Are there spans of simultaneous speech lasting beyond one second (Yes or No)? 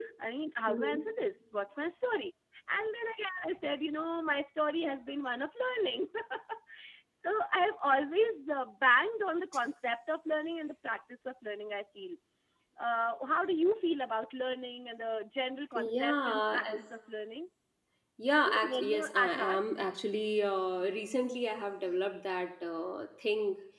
Yes